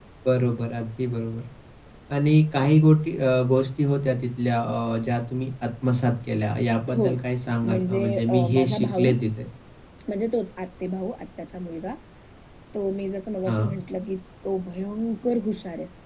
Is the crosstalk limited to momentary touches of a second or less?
No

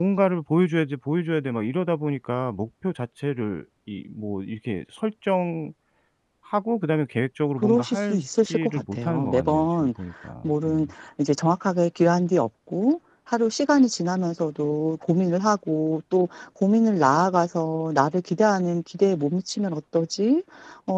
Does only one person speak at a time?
No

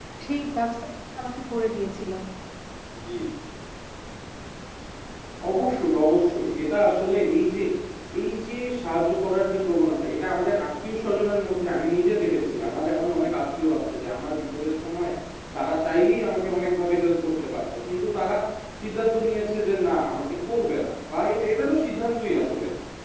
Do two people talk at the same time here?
No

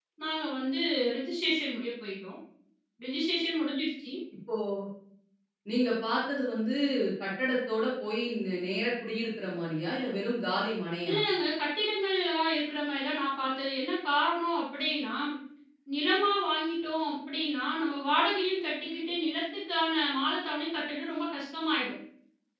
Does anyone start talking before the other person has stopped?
No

